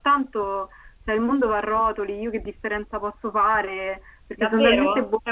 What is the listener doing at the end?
taking over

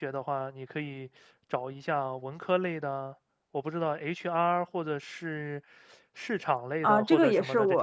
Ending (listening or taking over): taking over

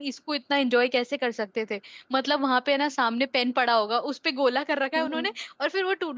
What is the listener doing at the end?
listening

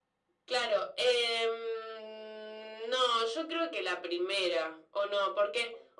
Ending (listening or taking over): listening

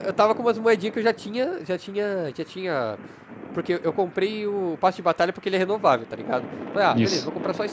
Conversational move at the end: listening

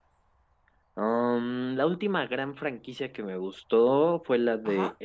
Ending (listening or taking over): listening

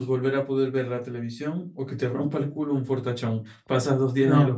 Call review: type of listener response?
listening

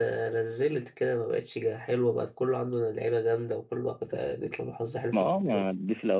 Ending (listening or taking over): taking over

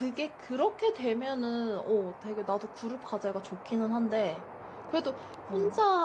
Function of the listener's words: listening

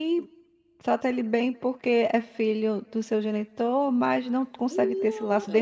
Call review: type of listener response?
taking over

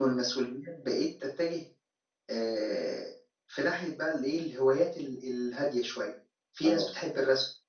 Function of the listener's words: listening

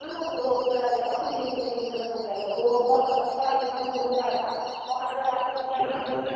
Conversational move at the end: listening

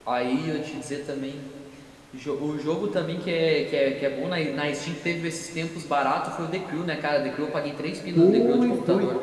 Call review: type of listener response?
taking over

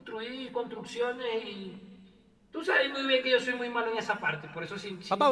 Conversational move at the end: taking over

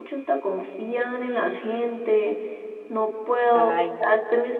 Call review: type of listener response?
listening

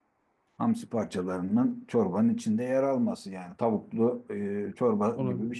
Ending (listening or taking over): taking over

